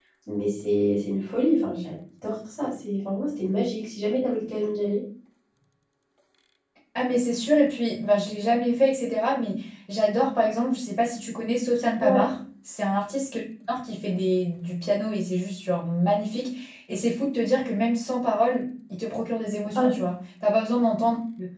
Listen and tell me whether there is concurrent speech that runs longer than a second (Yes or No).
No